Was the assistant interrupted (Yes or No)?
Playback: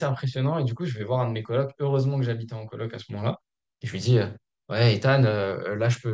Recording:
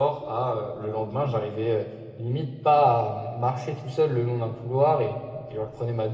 Yes